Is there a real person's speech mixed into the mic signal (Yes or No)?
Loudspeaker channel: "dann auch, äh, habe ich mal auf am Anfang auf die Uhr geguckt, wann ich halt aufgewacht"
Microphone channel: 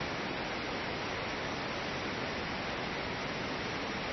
No